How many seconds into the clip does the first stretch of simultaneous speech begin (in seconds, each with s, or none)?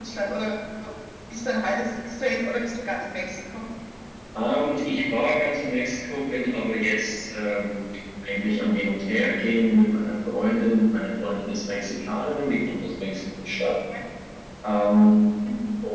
none